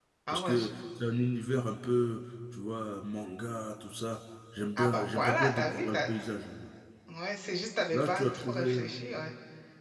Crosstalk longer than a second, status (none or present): present